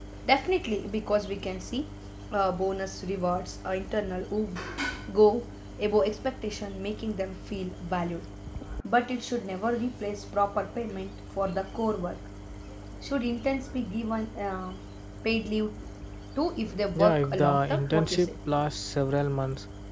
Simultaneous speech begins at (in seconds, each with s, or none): 17.0 s